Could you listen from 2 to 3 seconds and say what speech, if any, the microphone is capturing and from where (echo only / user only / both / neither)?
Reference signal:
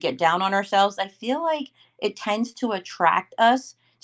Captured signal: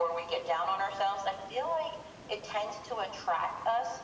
echo only